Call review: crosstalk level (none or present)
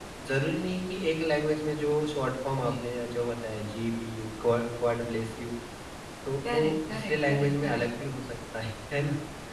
present